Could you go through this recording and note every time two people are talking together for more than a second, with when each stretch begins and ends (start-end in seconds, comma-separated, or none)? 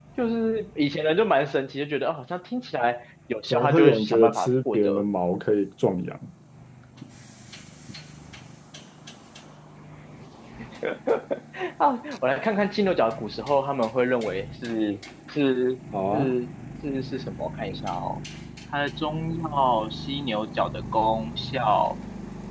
3.5-5.0